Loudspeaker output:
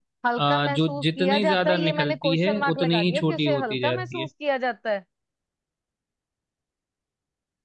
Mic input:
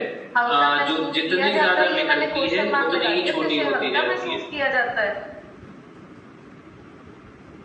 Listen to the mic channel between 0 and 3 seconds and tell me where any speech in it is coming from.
echo only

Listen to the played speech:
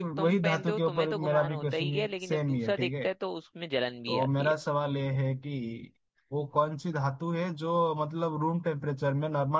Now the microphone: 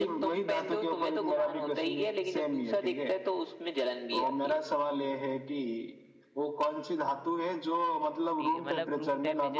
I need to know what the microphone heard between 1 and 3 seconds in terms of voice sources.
echo only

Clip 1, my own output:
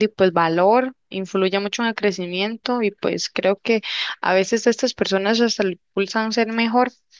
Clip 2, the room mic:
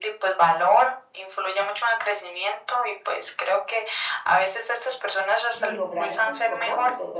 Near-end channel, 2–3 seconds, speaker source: echo only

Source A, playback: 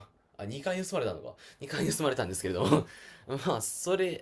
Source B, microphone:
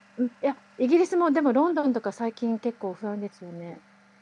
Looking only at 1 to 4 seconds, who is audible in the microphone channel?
user only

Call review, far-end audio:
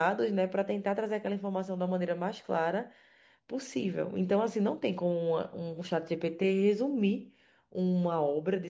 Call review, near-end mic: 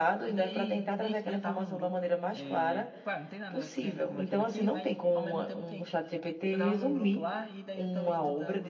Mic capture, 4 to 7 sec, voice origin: both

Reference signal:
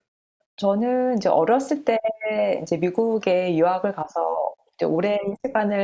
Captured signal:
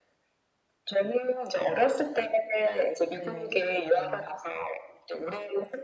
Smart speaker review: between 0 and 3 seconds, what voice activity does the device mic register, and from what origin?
echo only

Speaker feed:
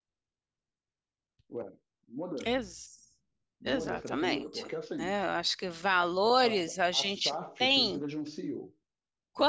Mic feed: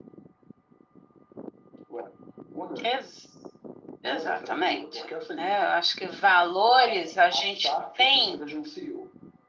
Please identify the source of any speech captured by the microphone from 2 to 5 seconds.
echo only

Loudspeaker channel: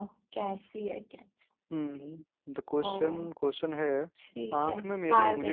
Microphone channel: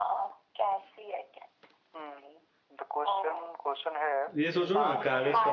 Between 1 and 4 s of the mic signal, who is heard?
echo only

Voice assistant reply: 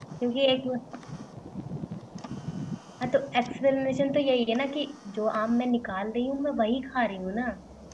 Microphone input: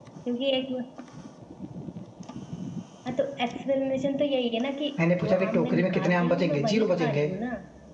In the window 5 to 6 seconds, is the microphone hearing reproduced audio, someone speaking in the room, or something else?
both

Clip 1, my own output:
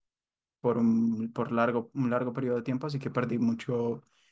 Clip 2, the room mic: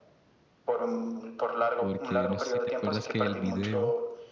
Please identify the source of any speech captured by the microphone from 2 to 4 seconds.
both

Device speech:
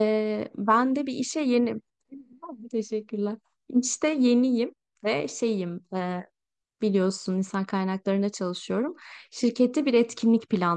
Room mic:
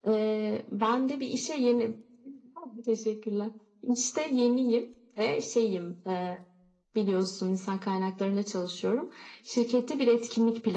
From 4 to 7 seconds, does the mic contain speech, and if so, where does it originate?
echo only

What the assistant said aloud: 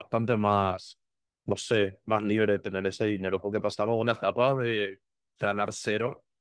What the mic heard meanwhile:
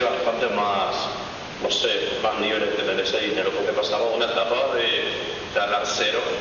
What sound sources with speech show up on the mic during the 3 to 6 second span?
echo only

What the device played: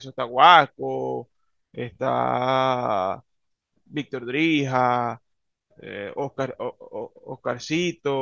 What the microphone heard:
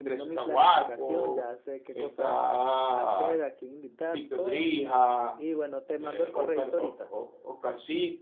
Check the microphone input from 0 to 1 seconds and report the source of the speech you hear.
both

